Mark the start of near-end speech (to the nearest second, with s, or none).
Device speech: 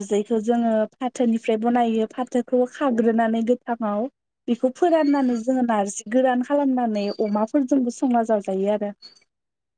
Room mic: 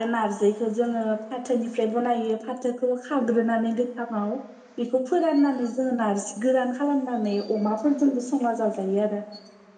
none